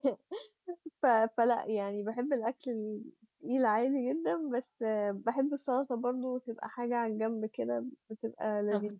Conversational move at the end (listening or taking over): taking over